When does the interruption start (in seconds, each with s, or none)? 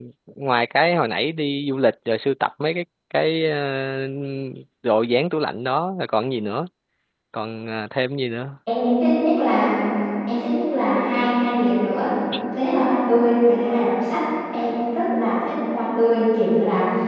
none